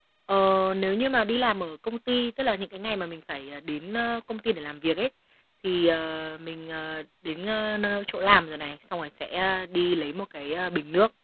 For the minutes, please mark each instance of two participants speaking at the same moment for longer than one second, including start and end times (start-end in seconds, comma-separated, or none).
none